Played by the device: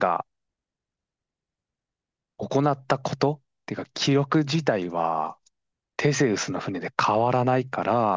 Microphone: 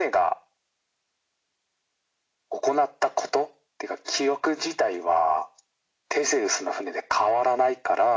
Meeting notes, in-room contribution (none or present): none